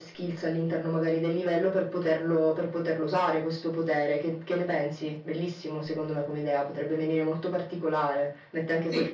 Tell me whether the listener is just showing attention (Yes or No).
Yes